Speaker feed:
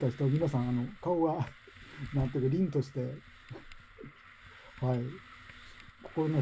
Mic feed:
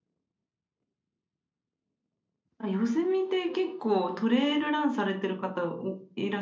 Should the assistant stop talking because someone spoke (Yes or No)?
Yes